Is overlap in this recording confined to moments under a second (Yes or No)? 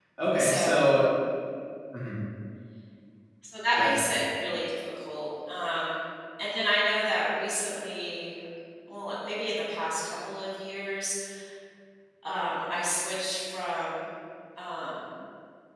Yes